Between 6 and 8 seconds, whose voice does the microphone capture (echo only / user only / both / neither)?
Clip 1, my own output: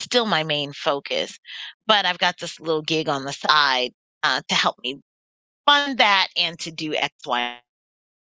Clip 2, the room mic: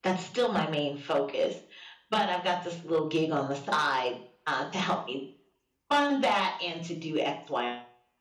echo only